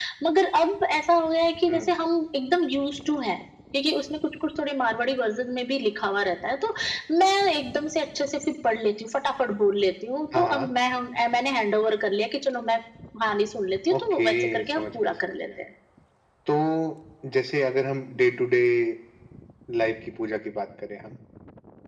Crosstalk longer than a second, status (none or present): present